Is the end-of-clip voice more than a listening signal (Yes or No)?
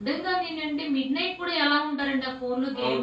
Yes